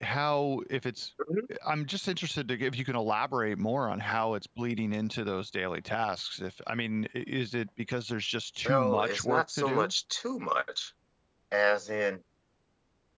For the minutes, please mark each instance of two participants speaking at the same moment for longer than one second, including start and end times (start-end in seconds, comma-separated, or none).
8.6-9.9